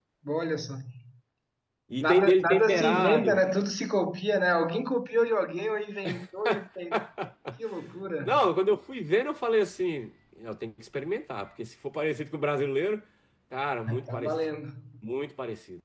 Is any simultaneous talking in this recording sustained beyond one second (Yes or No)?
Yes